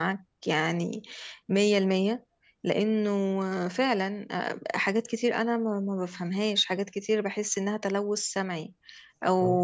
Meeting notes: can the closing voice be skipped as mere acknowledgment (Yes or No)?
Yes